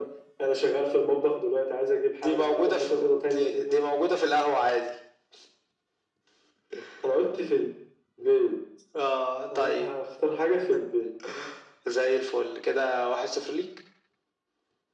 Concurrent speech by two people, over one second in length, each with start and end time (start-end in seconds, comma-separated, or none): 2.2-3.9